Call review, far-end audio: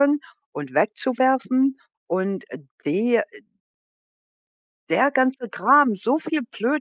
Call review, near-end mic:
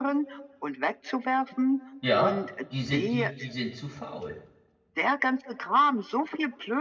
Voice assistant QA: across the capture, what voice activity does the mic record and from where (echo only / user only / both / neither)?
both